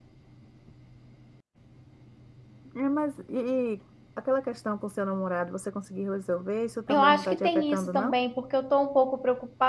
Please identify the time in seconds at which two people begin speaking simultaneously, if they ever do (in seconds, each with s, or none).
6.9 s